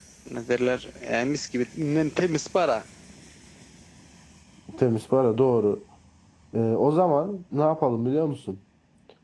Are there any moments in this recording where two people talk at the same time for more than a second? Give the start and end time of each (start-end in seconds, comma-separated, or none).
none